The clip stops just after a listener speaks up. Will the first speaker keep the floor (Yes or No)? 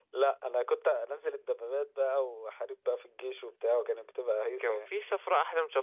No